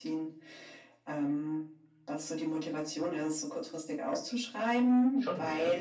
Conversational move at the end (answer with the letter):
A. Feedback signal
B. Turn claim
A